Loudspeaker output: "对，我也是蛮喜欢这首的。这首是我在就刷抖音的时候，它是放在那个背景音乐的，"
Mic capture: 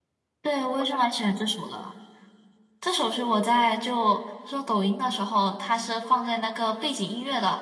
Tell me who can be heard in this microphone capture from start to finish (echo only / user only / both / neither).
echo only